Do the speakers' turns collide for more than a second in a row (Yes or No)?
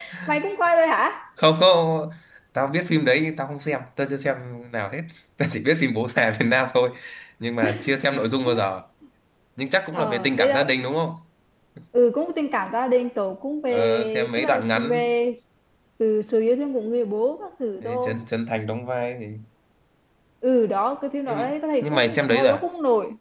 Yes